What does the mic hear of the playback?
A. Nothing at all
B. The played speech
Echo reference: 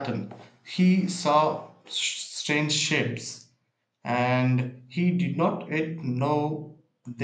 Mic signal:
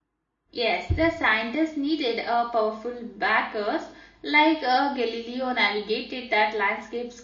A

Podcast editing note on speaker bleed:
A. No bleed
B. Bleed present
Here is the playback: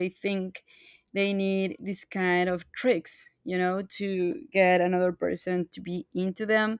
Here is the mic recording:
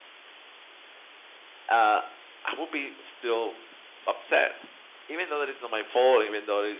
A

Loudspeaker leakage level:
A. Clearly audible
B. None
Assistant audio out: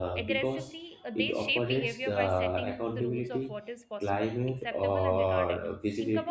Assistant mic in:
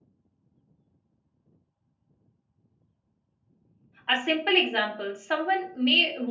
B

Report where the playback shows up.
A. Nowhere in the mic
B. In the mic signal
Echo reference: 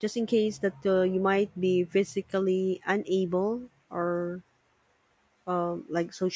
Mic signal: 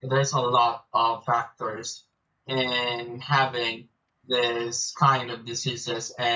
A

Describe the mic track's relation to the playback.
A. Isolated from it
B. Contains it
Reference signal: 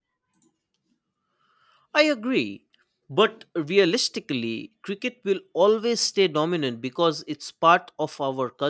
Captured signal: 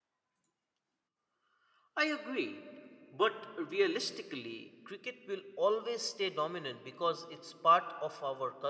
B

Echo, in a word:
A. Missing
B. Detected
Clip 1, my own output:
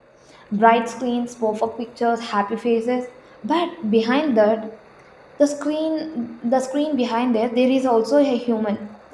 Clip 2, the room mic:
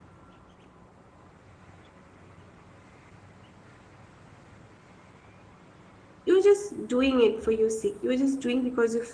A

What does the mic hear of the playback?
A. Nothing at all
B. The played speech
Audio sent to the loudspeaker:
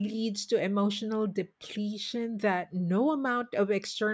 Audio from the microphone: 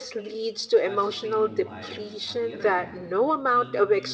B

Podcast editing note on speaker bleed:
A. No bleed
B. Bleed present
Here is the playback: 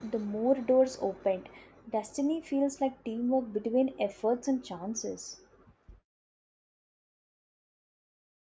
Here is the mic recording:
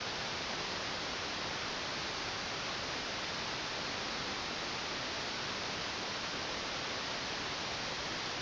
A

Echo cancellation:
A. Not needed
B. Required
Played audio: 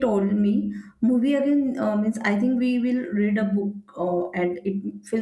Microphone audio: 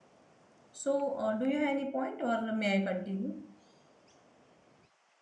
A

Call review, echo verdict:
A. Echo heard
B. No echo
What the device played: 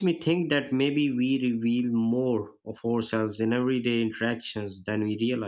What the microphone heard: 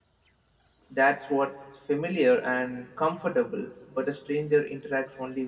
B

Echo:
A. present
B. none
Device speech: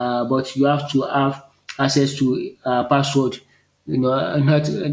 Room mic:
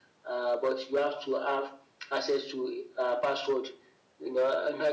A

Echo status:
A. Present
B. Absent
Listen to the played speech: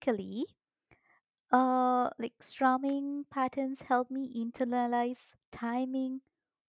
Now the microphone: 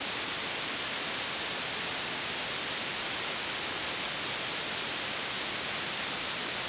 B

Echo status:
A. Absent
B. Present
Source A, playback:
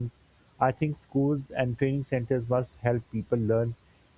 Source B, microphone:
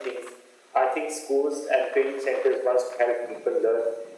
B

